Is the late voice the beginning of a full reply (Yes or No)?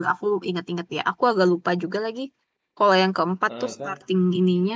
No